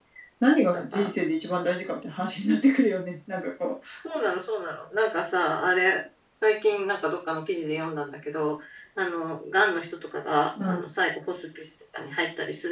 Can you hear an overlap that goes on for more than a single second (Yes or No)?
No